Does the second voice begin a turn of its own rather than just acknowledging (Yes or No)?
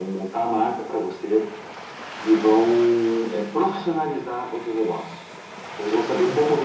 No